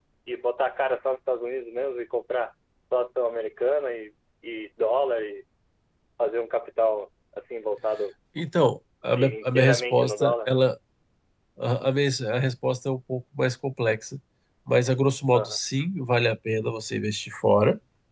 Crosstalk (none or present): present